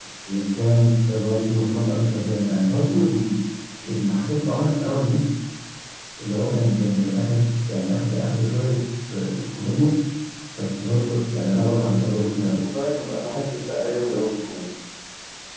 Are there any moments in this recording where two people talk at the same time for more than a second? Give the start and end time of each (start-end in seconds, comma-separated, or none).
none